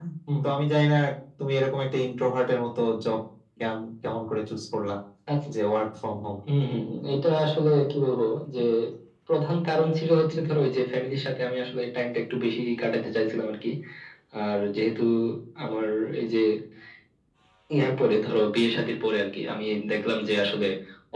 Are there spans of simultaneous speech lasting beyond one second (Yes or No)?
No